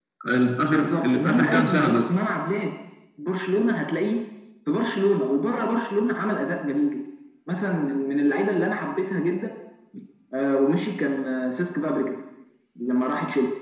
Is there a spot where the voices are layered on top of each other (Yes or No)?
Yes